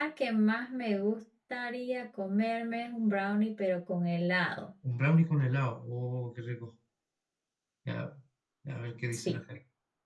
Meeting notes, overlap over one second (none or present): none